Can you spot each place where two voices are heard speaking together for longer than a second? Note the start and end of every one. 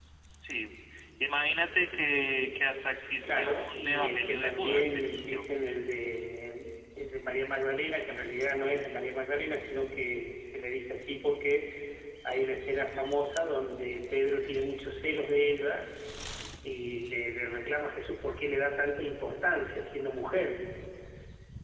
3.2-5.4

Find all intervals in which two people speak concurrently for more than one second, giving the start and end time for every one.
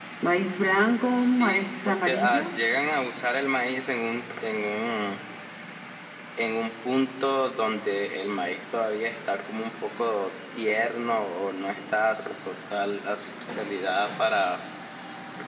1.1-2.4

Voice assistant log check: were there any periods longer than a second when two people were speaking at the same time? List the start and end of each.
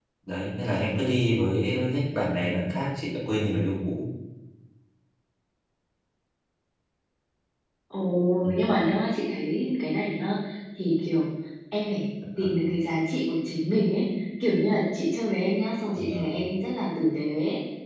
none

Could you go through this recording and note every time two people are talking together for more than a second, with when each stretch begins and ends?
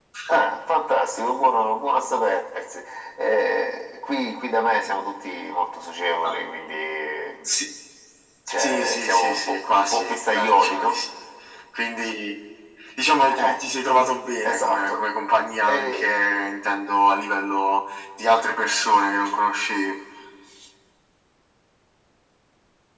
8.5-10.9

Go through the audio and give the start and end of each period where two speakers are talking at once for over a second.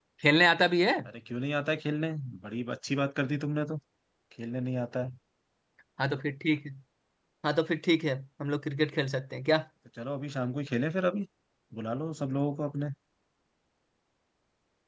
none

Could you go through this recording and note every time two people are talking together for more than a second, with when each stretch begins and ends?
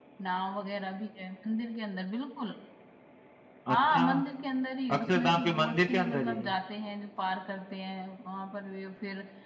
4.9-6.4

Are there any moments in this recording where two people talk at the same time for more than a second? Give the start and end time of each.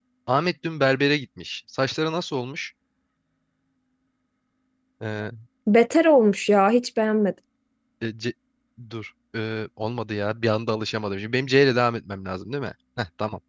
none

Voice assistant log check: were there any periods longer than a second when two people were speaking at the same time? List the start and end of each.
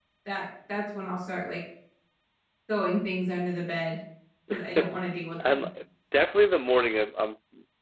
none

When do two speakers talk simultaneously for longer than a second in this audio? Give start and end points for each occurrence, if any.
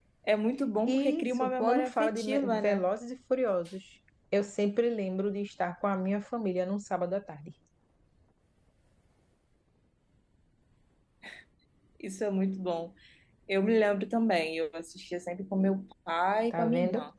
0.9-2.9

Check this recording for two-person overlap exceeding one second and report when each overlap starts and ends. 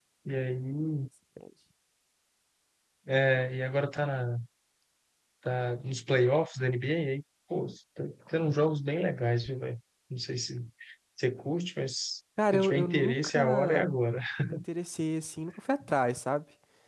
12.5-13.9

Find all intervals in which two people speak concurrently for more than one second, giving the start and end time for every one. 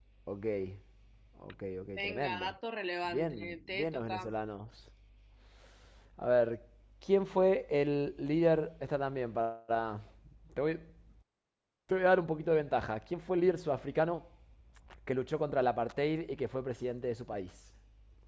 3.0-4.3

